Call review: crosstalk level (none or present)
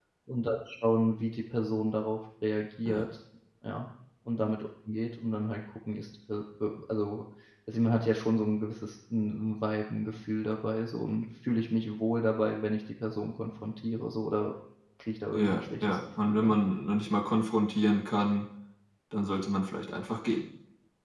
present